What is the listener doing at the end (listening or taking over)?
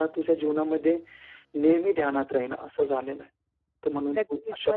taking over